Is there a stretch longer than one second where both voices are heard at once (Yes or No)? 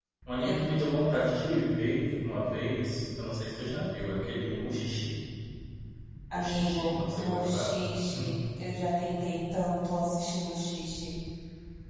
Yes